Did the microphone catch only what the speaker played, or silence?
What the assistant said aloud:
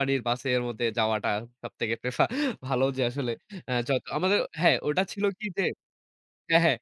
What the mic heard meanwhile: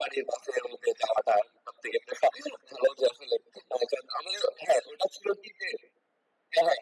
Yes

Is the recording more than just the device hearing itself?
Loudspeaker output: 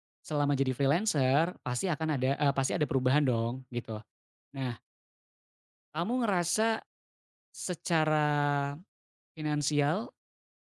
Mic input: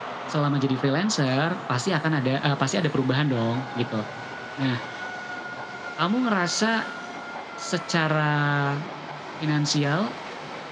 No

